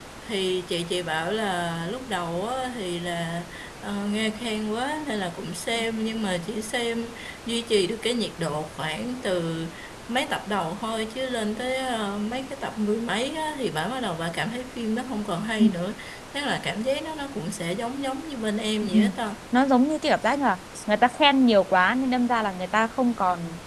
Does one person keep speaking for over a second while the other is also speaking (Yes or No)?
No